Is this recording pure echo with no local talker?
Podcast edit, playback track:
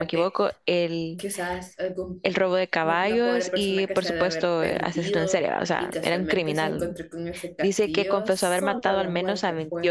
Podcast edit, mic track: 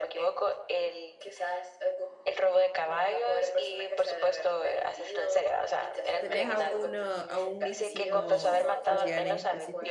No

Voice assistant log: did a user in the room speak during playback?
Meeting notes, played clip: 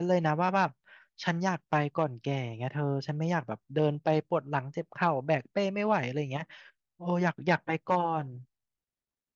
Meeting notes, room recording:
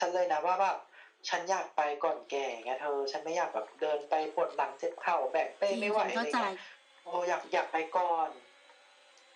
Yes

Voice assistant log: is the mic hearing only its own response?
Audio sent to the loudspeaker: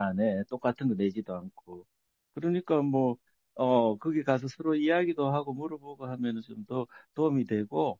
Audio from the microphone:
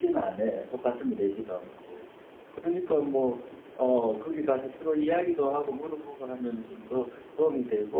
Yes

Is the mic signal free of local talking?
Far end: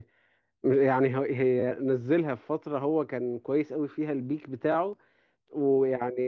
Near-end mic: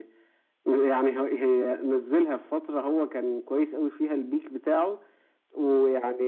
Yes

